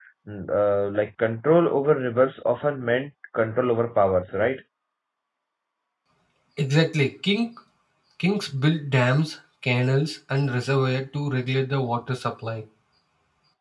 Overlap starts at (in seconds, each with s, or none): none